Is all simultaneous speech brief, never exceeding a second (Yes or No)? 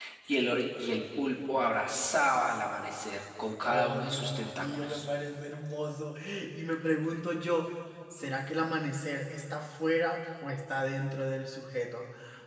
No